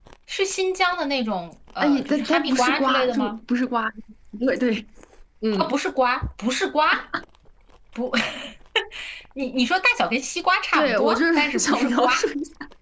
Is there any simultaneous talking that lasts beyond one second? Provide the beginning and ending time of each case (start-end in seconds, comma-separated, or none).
1.8-3.3, 10.7-12.1